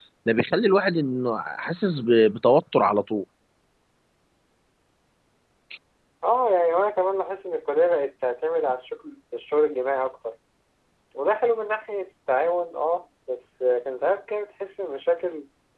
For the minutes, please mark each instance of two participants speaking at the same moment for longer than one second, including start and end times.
none

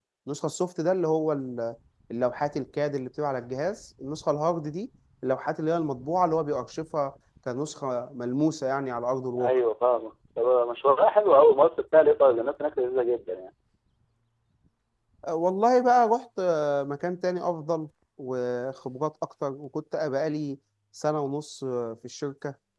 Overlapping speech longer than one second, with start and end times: none

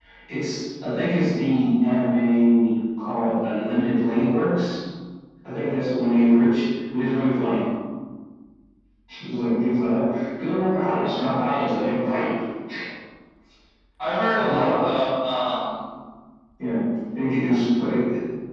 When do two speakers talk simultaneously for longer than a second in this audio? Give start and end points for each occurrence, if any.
10.7-12.2

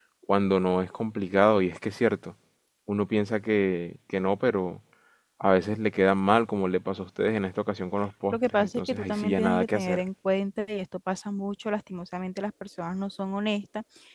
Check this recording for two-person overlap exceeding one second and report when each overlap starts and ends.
8.3-10.0

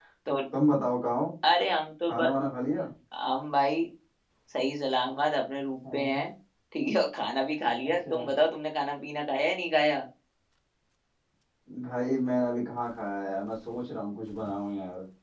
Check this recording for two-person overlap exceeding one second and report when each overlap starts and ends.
none

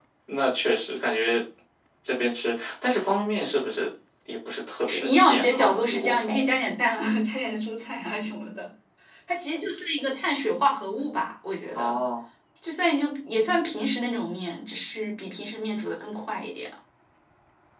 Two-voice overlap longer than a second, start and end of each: 4.9-6.5

